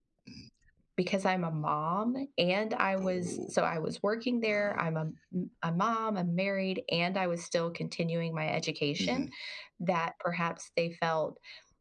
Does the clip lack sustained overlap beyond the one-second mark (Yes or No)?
Yes